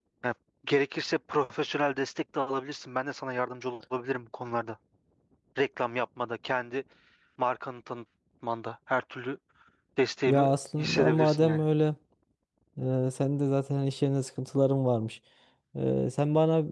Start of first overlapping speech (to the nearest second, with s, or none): 10 s